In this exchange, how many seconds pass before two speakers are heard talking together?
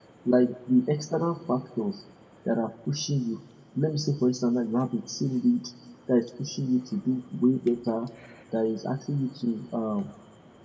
none

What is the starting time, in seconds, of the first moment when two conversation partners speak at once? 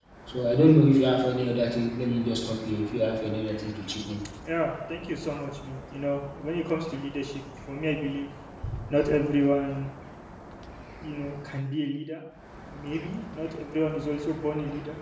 none

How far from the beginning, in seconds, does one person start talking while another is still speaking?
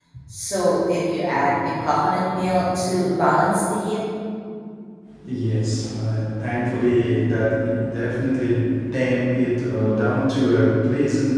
none

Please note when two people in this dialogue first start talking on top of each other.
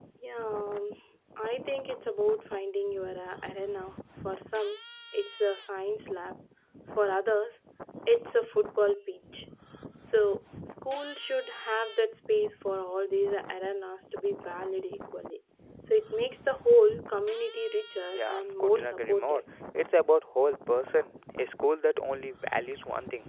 18 s

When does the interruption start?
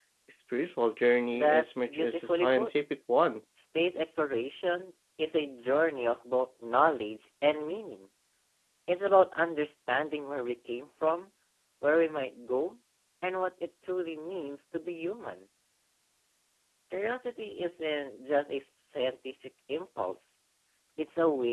1 s

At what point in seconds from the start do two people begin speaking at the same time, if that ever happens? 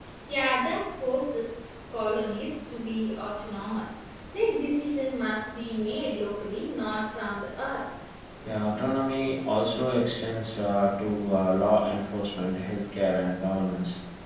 none

